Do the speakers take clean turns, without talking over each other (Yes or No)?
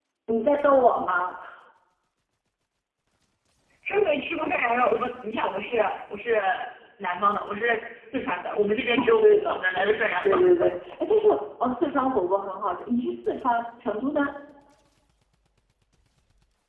No